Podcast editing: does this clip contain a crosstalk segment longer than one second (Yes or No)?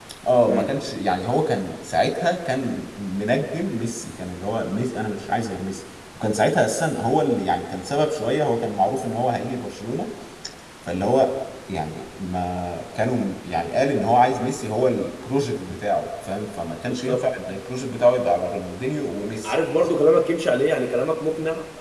No